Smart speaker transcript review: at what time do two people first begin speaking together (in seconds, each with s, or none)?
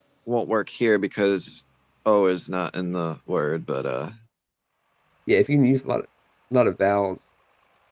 none